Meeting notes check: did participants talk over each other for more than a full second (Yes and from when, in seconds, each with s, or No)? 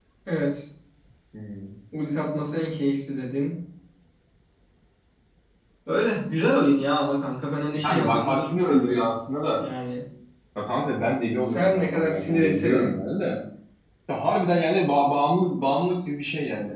Yes, from 7.8 s